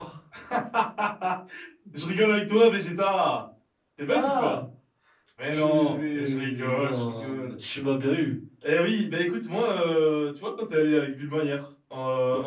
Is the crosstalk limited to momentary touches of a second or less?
No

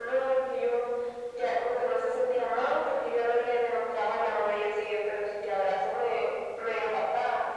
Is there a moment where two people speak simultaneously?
No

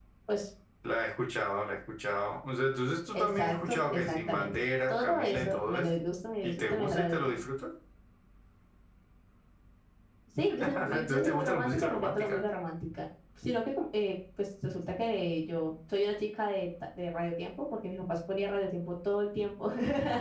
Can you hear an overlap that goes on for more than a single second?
Yes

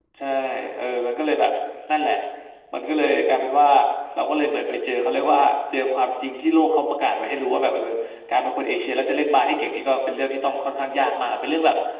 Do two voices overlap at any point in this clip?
No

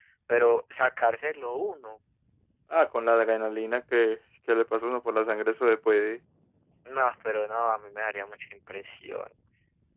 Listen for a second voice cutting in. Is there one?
No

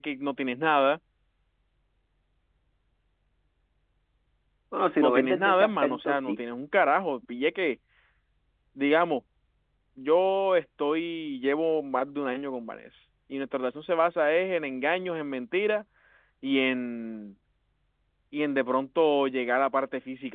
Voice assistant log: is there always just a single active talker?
No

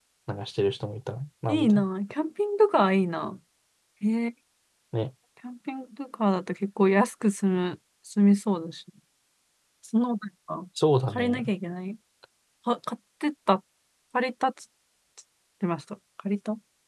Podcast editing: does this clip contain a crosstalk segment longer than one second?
No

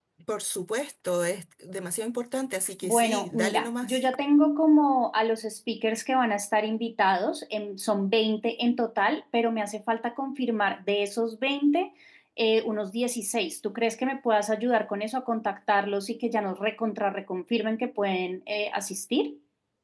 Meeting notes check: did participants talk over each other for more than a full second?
Yes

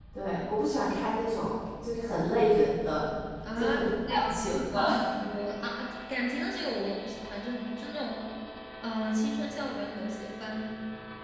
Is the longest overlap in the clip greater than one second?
Yes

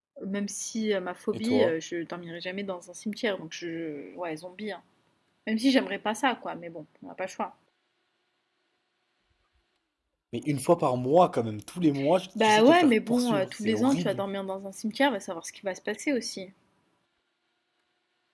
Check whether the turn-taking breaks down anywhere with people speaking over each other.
Yes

